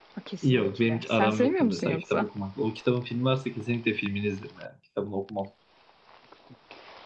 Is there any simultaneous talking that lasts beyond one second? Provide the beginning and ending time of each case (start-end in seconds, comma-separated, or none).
0.5-2.3